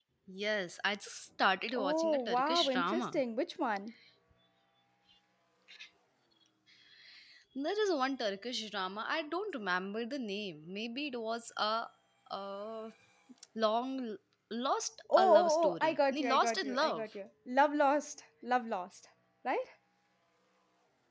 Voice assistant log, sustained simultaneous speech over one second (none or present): present